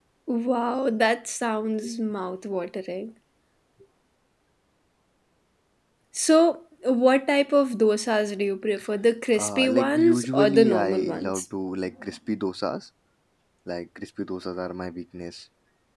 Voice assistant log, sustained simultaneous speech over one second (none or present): present